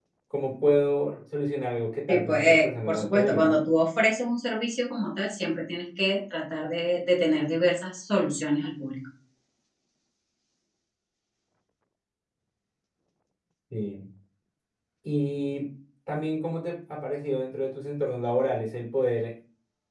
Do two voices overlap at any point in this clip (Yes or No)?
Yes